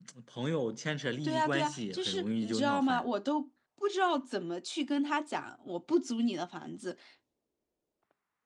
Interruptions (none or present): present